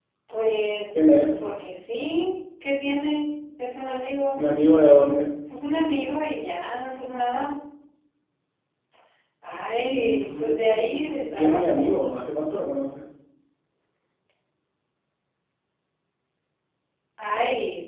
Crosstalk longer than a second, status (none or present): present